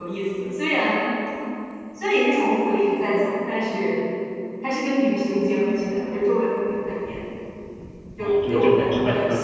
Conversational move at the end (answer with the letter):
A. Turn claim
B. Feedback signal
A